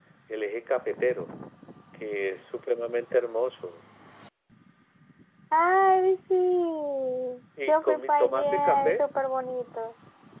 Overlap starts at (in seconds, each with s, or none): 7.7 s